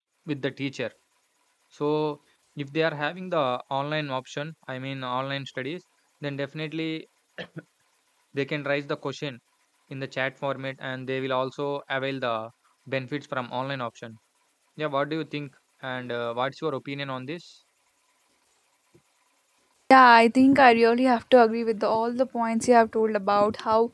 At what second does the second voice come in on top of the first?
none

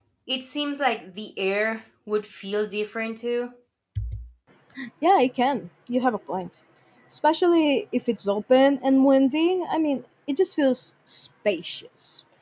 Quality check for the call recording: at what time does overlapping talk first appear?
none

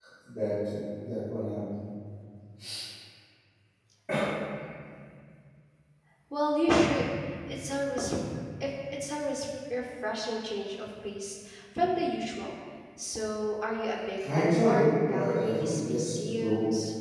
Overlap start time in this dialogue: 14.2 s

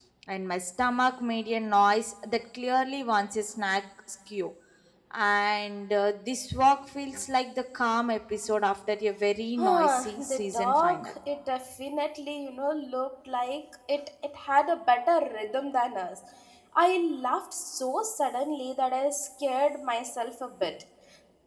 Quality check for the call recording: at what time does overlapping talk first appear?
9.6 s

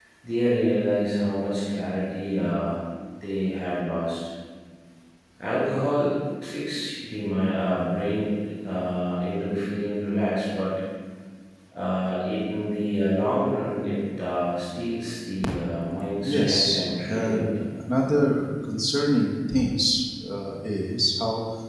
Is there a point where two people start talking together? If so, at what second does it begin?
16.2 s

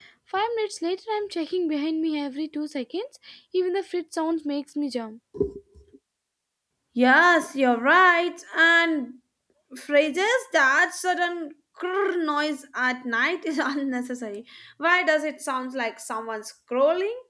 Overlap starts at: none

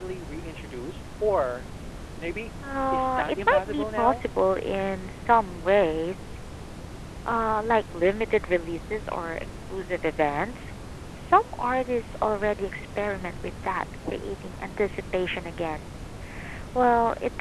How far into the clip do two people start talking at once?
2.6 s

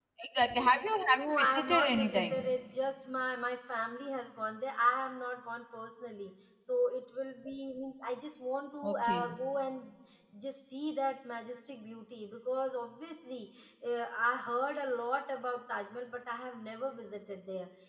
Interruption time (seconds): 1.1 s

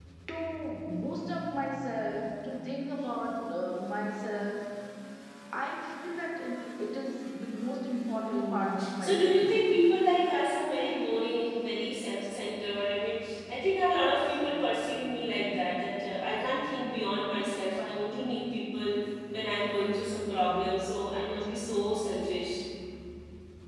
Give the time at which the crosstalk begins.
8.2 s

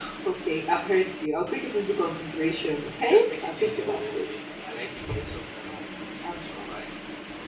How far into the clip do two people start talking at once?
3.1 s

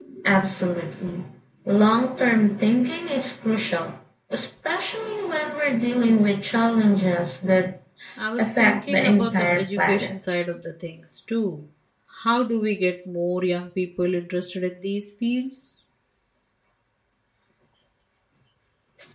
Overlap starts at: 8.4 s

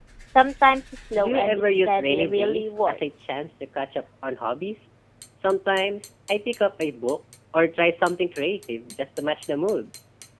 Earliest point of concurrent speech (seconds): 1.2 s

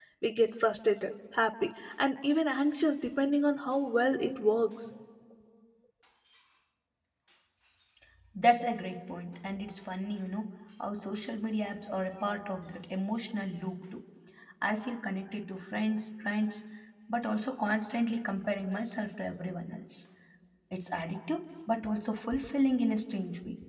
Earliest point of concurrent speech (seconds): none

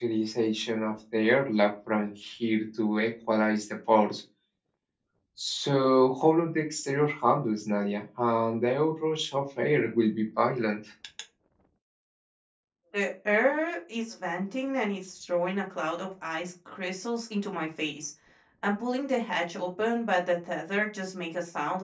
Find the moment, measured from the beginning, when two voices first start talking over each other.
none

